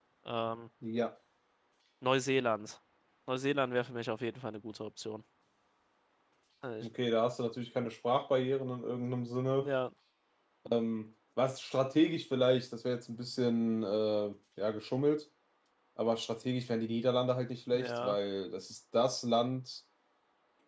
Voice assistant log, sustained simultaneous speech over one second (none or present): none